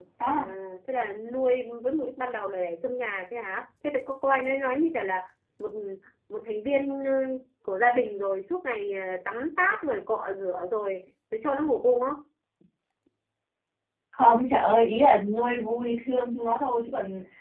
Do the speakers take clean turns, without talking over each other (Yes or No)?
Yes